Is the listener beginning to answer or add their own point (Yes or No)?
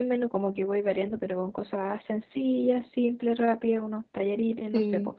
Yes